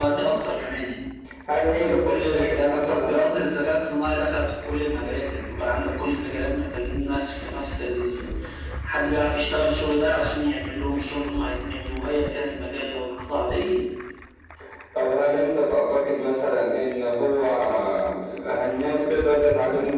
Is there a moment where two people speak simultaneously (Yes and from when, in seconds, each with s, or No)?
Yes, from 1.7 s